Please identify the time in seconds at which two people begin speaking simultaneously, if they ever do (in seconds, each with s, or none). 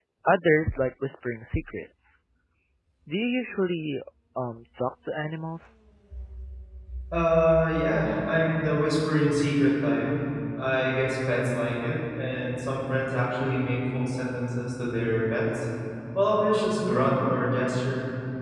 none